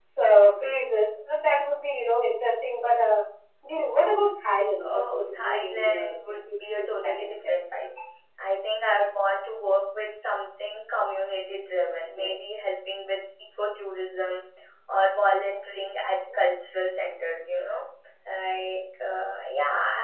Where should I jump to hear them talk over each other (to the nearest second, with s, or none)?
5 s